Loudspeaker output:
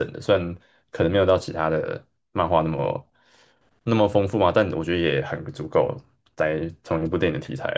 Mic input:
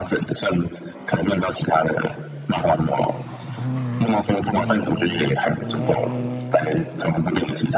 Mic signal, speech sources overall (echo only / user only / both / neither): echo only